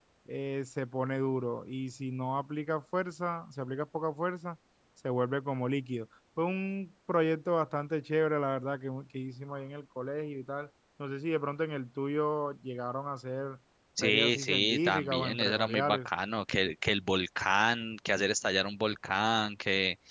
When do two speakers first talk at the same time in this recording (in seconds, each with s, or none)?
14.0 s